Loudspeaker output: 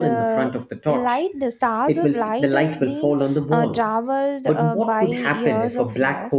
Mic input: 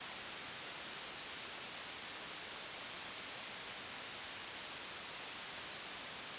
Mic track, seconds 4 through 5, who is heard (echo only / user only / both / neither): neither